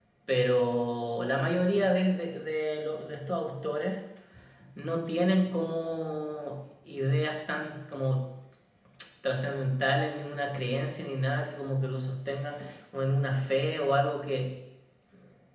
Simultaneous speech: No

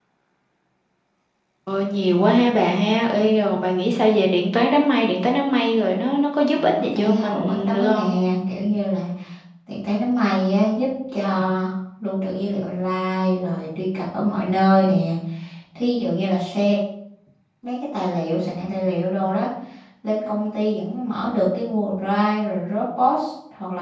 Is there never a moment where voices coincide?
No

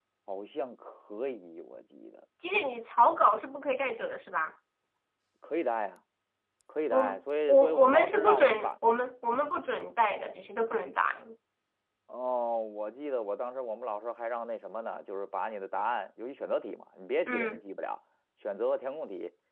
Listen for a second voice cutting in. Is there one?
Yes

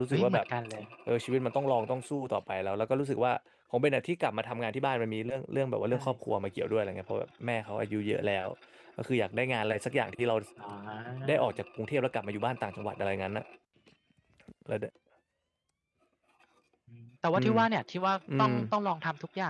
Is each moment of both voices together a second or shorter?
Yes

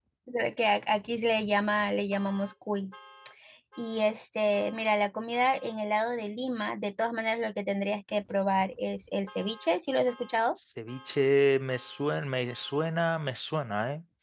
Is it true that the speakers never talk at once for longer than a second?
Yes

